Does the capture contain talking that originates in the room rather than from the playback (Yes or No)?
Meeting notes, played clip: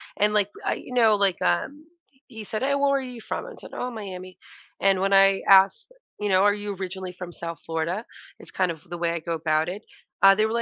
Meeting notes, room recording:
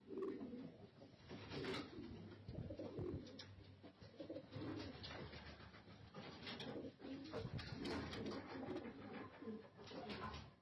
No